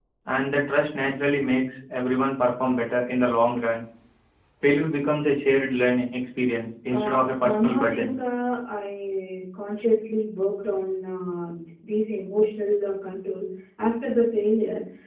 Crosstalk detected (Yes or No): Yes